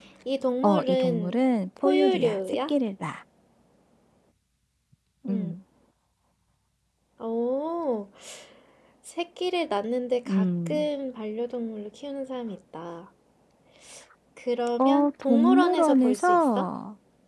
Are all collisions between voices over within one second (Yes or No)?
No